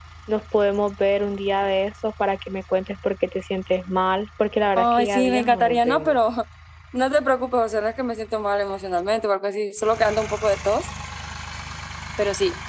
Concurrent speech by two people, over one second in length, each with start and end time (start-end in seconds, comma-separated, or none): 4.8-6.2